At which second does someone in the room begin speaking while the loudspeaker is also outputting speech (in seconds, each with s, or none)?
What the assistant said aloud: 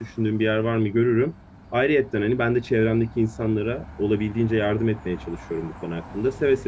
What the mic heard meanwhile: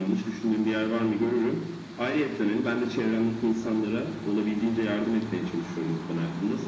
none